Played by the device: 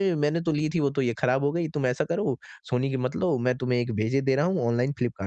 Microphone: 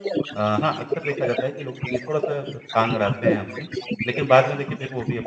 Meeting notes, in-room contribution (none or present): present